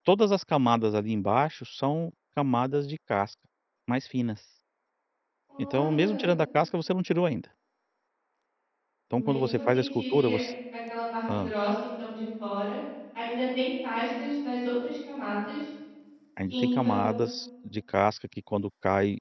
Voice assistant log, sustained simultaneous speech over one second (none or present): present